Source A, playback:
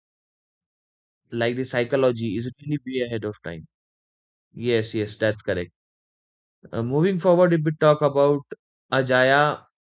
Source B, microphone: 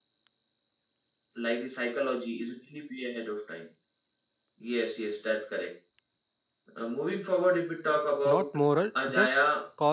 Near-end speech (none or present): present